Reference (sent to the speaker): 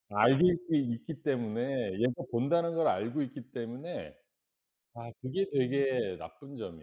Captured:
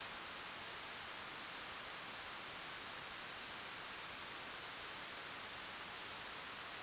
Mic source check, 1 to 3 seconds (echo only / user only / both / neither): neither